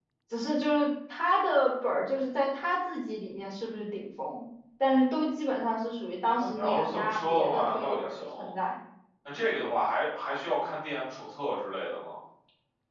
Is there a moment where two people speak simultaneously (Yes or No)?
Yes